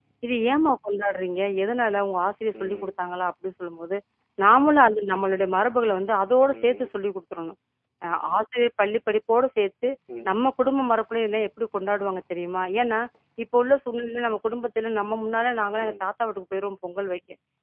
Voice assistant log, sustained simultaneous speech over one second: none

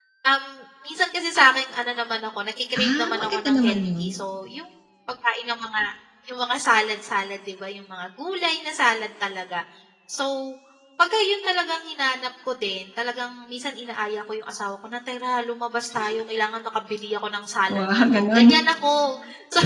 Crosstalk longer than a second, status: present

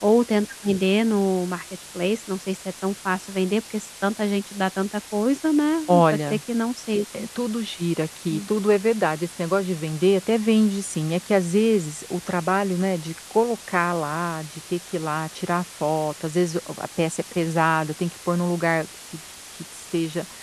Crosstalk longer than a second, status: none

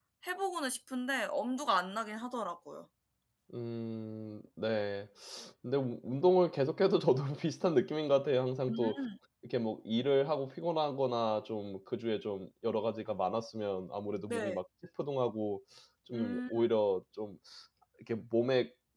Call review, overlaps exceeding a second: none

